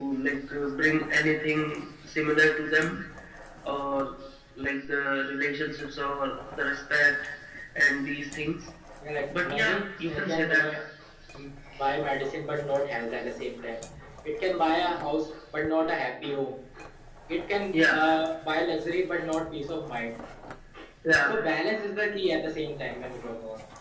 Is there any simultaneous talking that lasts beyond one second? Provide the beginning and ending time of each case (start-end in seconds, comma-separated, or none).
9.3-10.6